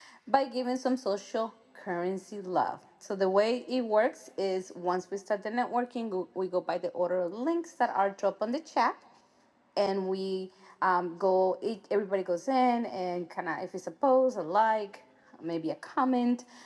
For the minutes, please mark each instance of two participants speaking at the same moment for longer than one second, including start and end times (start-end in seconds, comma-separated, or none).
none